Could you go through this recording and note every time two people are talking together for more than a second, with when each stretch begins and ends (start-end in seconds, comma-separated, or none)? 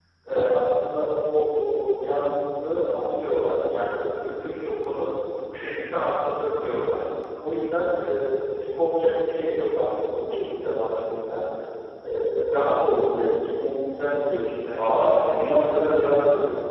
14.8-16.0